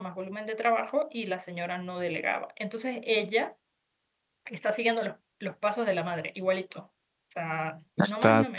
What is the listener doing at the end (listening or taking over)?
taking over